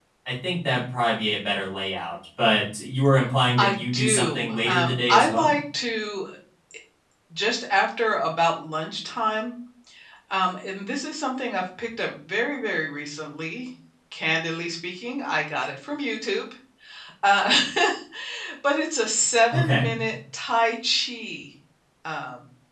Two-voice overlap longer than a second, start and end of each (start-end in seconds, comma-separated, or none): 3.6-5.6